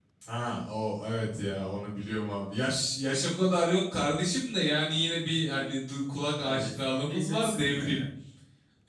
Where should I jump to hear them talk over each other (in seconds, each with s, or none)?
6.4 s